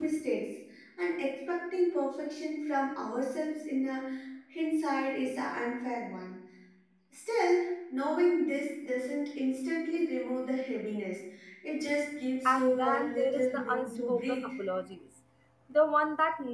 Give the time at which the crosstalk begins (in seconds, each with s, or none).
12.4 s